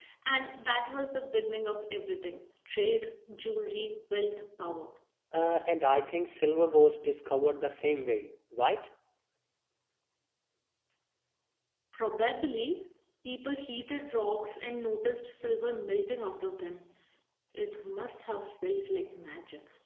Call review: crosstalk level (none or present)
none